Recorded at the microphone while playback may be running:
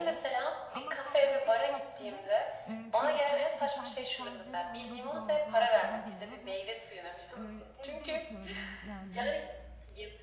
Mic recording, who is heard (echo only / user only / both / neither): both